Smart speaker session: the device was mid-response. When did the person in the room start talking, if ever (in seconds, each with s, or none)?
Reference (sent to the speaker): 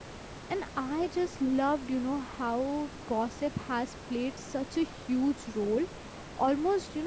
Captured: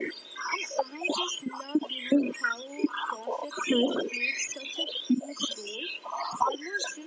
none